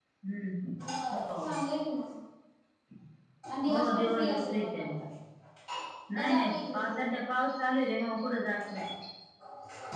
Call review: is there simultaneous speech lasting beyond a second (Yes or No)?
Yes